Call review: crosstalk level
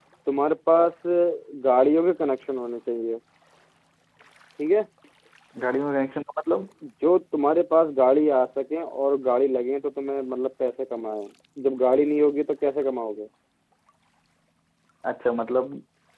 none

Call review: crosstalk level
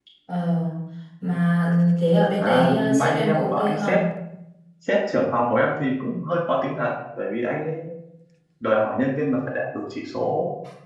present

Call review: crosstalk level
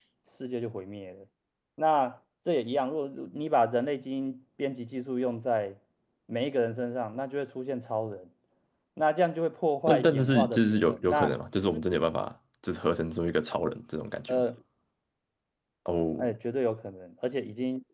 present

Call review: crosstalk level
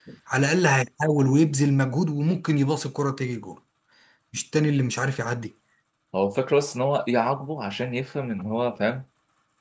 none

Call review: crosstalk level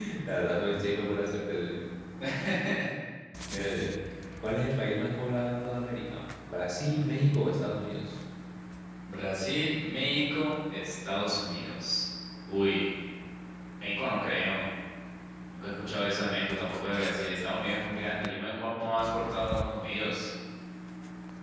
none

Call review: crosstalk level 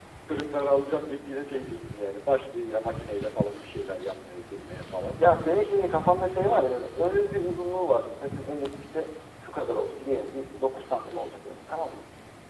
none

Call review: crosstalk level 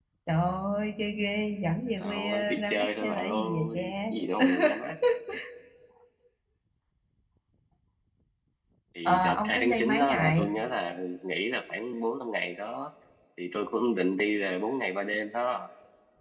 present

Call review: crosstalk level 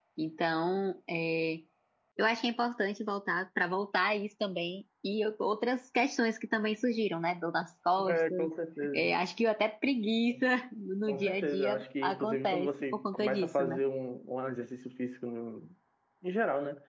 present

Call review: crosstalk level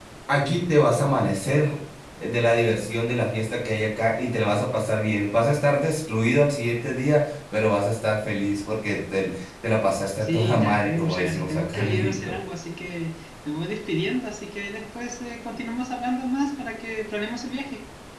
present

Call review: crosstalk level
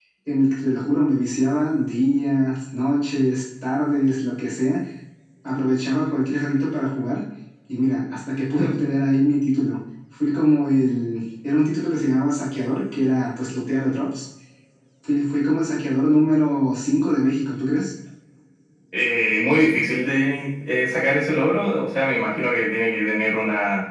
none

